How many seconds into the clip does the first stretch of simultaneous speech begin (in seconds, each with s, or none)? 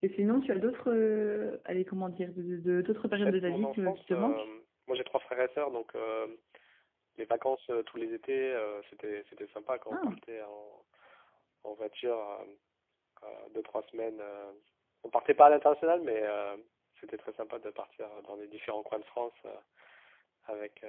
3.2 s